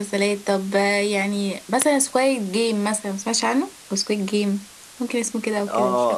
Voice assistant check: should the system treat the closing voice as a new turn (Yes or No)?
Yes